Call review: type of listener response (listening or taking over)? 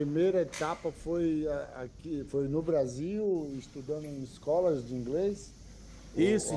taking over